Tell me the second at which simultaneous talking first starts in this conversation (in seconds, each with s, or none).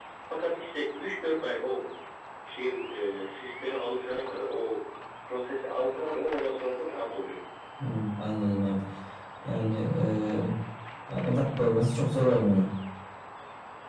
none